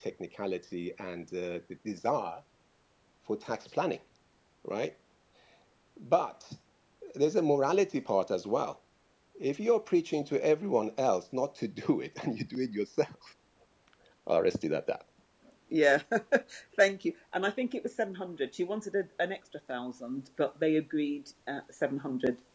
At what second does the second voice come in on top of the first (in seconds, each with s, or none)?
none